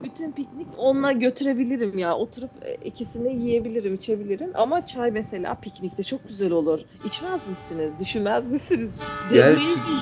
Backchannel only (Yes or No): No